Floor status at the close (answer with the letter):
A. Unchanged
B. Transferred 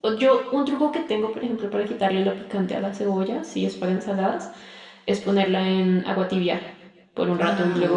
B